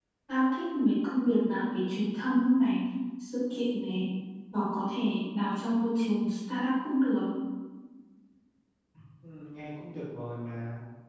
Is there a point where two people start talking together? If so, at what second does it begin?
none

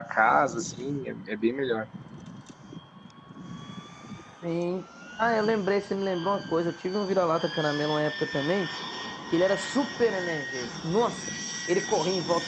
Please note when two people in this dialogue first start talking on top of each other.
none

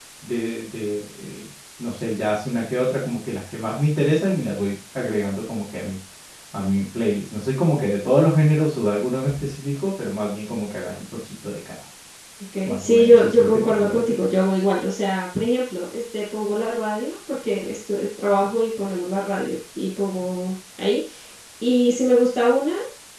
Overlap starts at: 12.7 s

